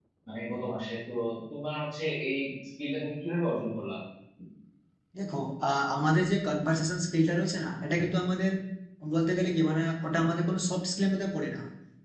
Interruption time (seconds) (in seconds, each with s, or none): none